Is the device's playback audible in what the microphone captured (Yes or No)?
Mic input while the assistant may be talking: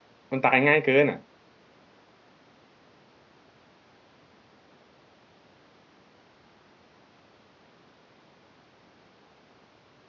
No